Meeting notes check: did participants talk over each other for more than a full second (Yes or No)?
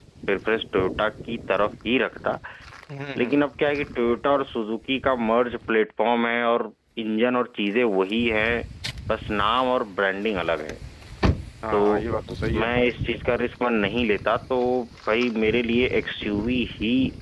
No